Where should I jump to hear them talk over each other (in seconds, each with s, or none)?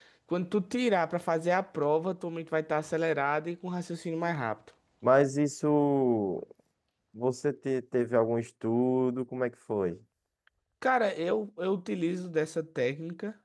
none